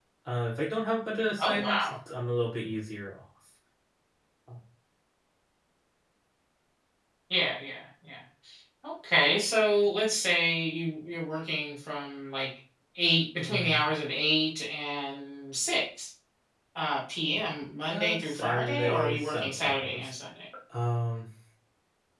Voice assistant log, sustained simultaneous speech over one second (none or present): present